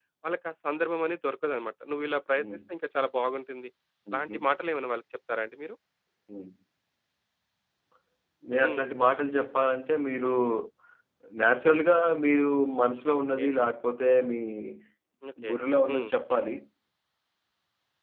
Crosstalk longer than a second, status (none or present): none